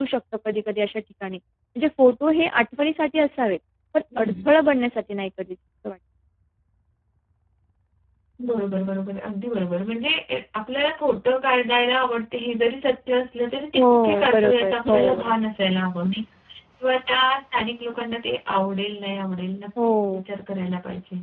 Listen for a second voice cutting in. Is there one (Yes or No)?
Yes